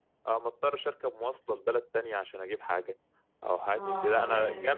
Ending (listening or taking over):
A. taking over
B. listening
B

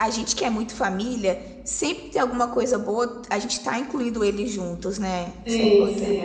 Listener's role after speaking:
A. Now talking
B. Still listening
A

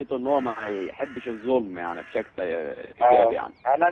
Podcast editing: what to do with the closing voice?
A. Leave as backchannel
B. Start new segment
B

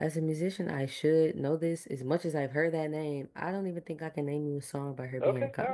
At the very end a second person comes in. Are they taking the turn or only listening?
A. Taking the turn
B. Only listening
A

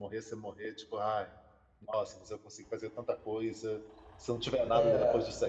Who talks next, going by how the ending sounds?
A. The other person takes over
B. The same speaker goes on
B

